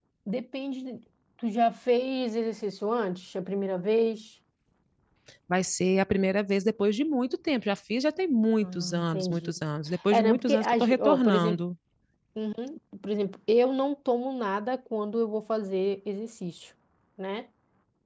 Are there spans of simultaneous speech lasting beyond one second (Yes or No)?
Yes